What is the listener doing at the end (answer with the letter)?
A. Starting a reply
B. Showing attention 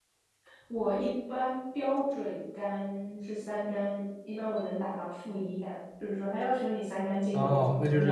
A